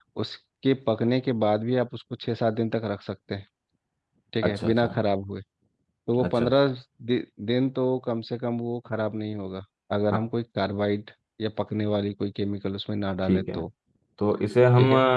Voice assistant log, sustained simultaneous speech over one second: none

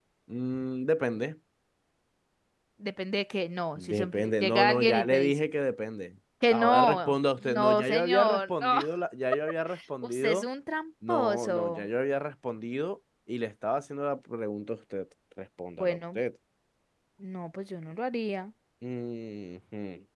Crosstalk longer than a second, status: present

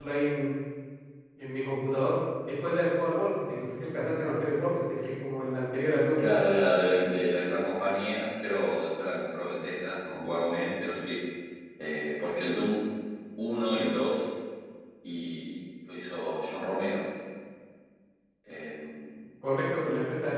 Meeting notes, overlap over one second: none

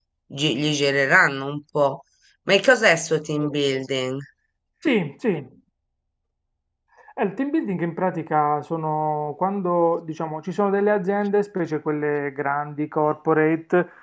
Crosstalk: none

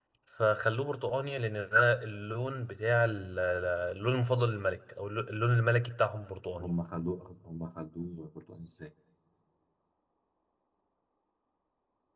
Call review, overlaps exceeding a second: none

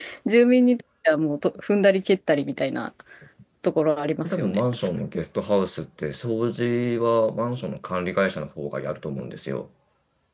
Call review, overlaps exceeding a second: none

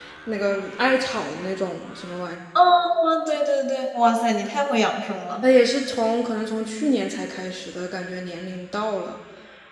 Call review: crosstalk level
none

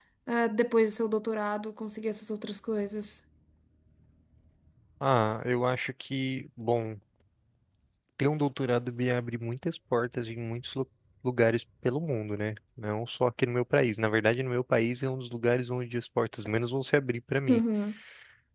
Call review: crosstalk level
none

